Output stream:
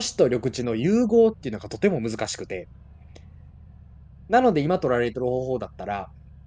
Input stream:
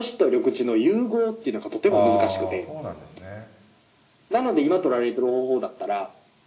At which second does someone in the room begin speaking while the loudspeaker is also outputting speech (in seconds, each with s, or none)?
1.9 s